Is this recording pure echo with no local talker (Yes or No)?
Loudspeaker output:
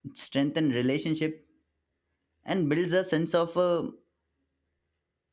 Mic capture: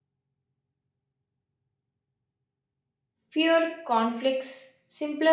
No